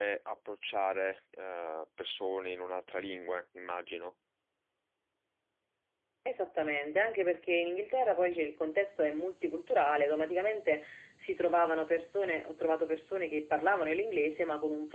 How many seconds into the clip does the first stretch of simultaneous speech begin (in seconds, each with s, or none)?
none